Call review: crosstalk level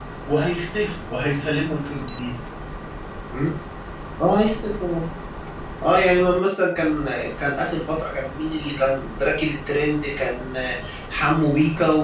none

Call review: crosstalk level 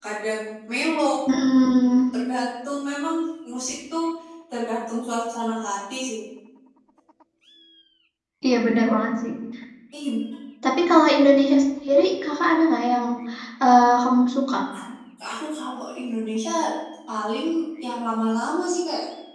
none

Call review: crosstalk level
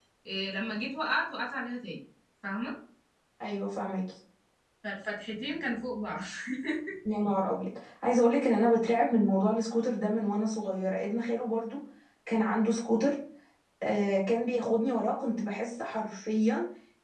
none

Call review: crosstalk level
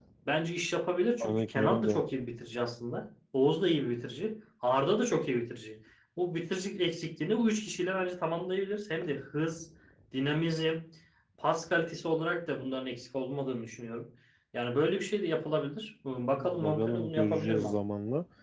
present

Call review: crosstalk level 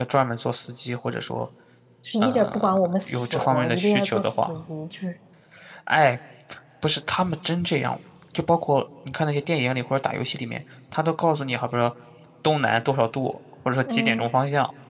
present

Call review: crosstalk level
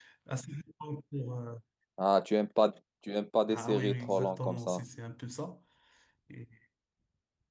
present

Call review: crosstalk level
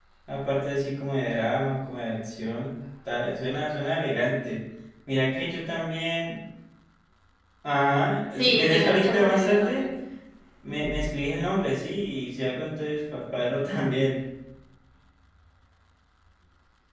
present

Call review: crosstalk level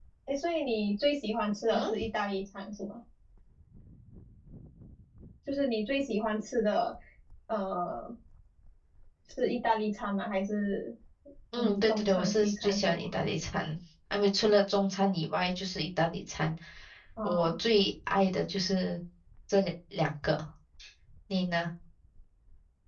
present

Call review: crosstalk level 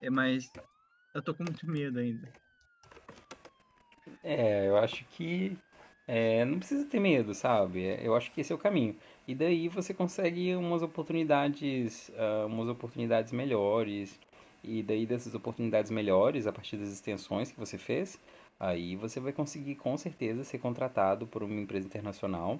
none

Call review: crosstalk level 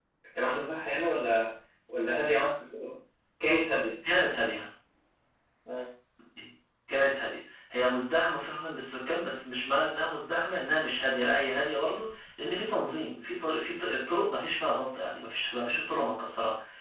none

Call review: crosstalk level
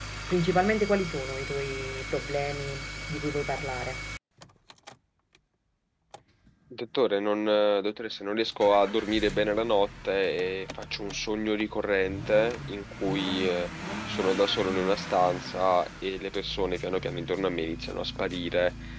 none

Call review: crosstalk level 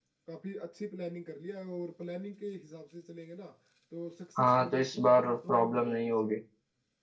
present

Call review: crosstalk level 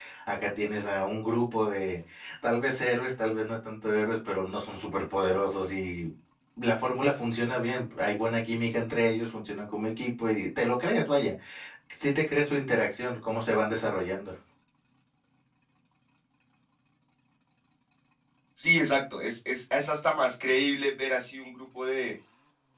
none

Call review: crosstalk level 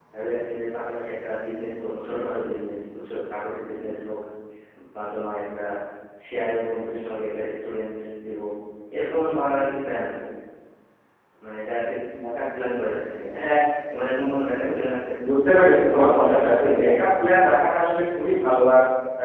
present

